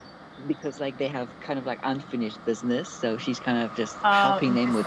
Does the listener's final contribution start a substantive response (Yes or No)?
Yes